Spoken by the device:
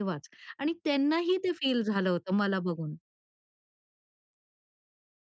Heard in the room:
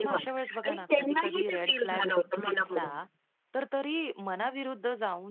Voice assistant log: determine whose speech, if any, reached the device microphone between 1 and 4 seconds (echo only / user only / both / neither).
both